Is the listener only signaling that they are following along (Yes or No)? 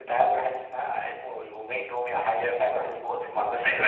No